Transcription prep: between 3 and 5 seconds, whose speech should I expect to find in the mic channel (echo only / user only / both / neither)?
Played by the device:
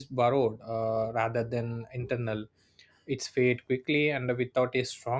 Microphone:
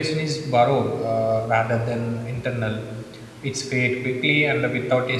echo only